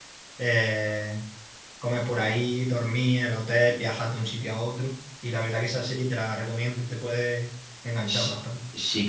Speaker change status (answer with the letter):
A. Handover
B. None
A